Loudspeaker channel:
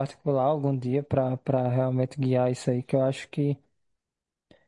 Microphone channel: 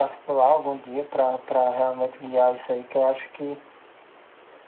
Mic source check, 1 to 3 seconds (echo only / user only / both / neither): echo only